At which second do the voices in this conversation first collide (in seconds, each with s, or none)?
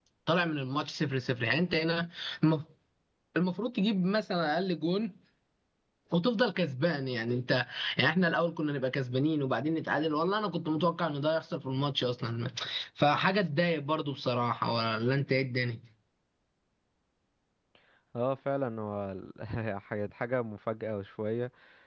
none